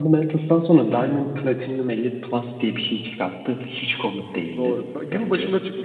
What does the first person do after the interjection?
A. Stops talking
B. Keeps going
A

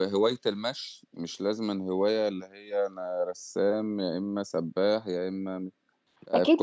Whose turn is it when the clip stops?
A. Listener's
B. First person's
A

